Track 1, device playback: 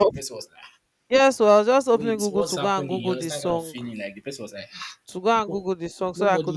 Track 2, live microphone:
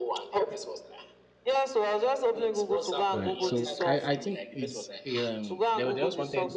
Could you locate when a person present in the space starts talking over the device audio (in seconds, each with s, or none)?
3.1 s